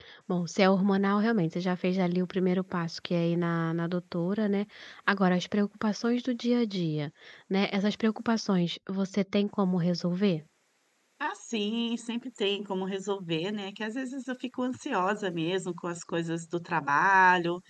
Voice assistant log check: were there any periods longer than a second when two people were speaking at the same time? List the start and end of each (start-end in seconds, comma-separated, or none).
none